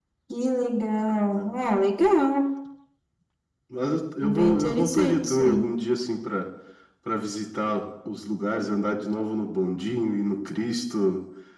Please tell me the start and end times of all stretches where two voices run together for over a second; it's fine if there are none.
4.2-5.7

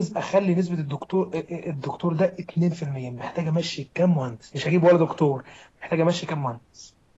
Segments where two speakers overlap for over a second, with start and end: none

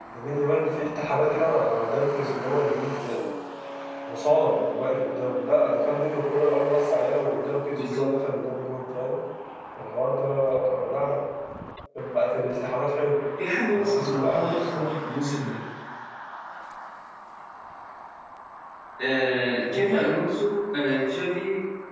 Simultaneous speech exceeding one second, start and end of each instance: 13.7-15.0

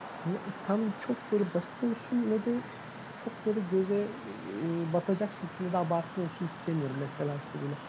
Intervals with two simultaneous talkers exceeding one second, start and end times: none

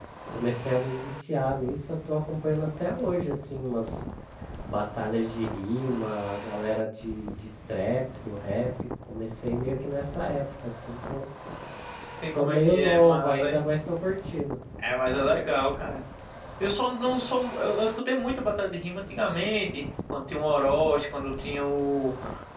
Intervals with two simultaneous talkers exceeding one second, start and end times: 12.3-13.6

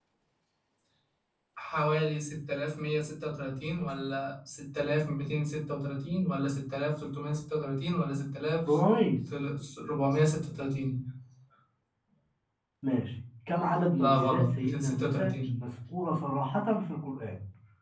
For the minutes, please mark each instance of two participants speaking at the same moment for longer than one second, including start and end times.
14.0-15.5

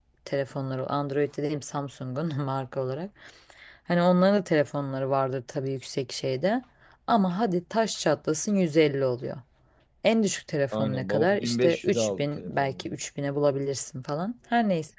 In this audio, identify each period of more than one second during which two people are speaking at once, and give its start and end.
10.7-12.9

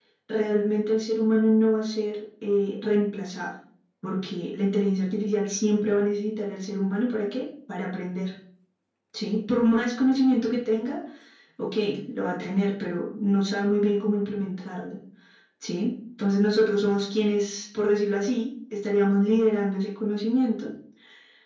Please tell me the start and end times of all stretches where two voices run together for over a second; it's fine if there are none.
none

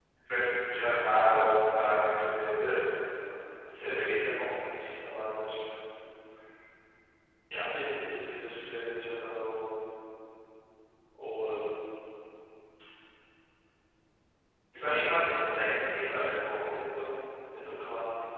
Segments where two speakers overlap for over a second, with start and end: 14.7-16.7

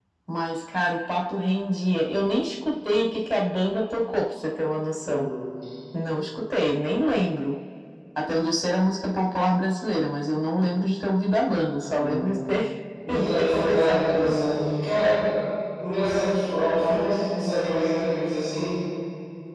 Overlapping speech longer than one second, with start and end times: 13.1-14.3

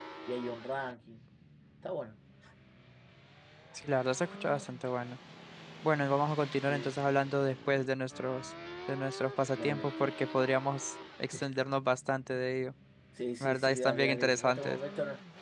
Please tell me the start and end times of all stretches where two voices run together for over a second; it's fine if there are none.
13.4-14.8

